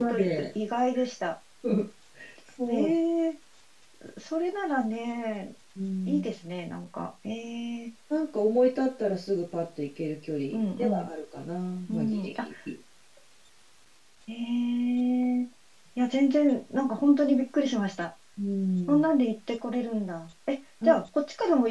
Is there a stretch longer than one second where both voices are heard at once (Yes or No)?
No